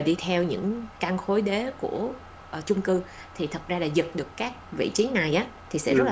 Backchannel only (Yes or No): Yes